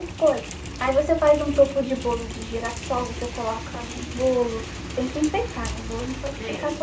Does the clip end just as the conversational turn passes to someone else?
Yes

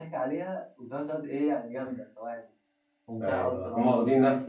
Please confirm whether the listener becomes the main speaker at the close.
Yes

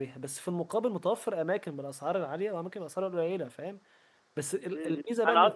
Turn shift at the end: Yes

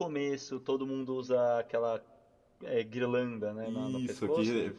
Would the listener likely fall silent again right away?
No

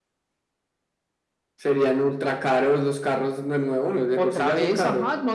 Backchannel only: No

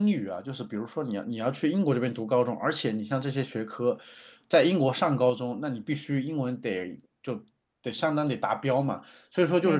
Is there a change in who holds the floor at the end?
No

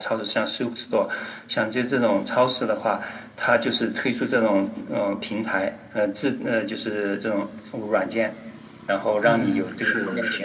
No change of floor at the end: No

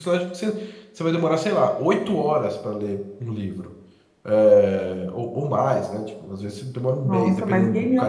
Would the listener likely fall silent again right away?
No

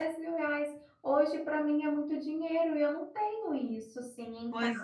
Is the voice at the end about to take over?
Yes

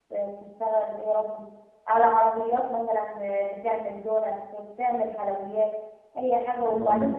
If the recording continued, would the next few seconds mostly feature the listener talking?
Yes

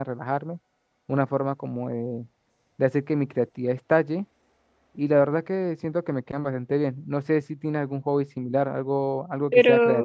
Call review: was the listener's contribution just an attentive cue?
No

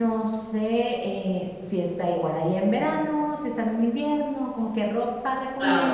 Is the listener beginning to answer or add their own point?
Yes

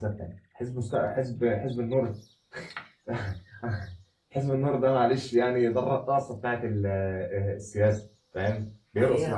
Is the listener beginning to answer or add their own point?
Yes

